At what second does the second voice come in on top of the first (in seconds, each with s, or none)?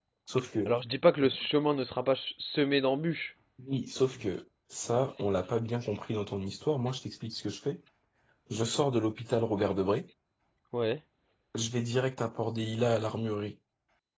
none